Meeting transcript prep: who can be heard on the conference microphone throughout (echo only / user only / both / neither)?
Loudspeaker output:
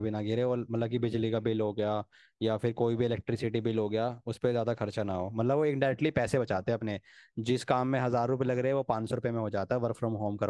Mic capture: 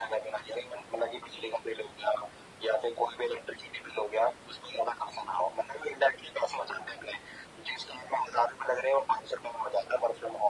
echo only